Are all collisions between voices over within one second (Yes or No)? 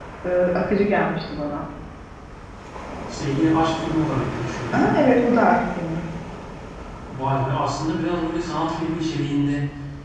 Yes